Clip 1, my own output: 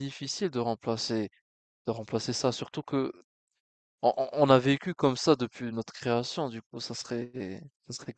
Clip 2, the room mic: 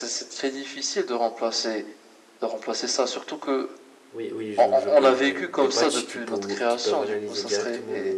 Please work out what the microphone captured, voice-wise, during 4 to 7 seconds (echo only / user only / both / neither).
both